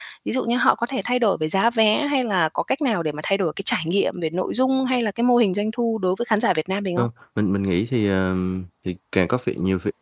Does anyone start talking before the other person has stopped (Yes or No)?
No